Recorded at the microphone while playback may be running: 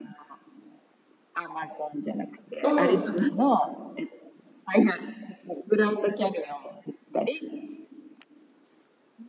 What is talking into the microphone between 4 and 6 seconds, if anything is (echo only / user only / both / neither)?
echo only